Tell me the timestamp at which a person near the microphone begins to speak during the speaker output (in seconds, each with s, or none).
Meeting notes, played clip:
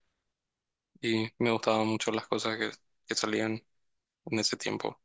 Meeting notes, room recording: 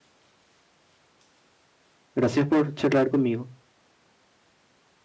2.1 s